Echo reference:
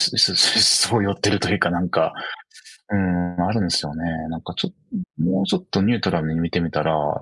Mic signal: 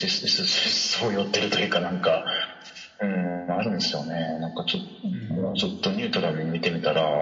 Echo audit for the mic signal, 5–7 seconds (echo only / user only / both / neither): both